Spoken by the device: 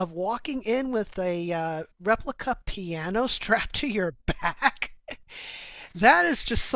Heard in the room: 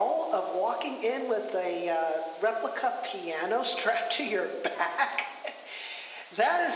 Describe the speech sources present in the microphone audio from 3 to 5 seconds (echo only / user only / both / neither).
echo only